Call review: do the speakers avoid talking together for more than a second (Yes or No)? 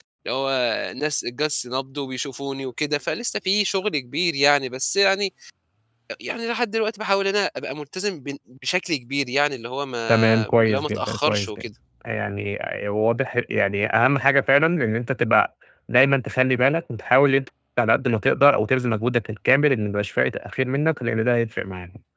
No